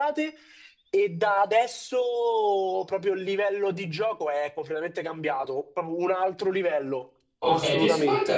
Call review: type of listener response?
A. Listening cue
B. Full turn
B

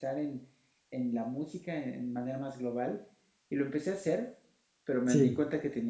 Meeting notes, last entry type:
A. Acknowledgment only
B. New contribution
A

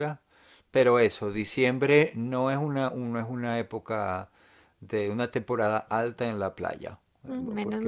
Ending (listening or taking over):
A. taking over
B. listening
A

